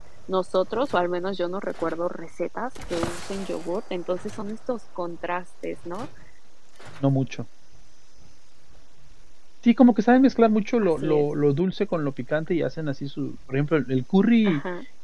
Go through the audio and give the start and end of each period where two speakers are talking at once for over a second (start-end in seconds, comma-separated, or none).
none